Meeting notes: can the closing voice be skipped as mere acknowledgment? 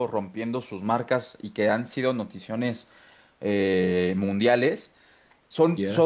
Yes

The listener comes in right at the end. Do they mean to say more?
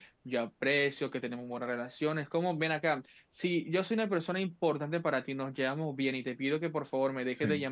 No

